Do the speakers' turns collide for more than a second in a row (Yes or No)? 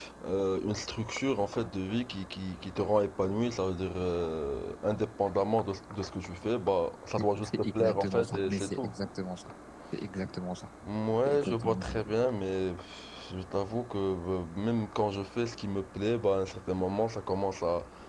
Yes